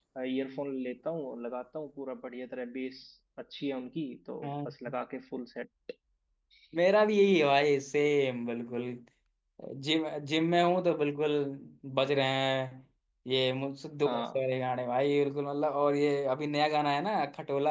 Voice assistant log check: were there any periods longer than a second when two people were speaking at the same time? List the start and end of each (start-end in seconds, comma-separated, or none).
none